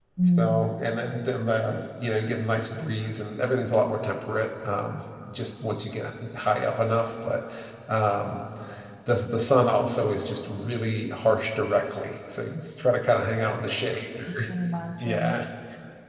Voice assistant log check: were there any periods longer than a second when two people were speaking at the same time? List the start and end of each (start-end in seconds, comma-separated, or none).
none